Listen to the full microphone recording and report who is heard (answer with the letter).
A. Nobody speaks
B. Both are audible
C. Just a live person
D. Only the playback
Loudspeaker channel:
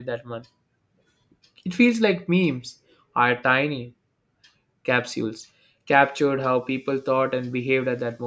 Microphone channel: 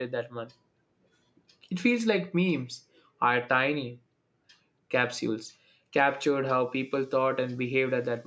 D